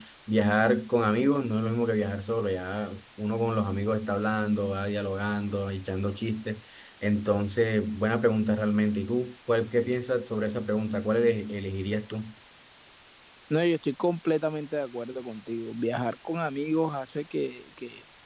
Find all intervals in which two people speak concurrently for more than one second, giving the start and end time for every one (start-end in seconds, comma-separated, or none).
none